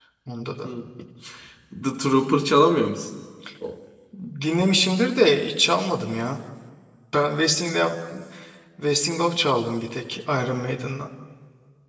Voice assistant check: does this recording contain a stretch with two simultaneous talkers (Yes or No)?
No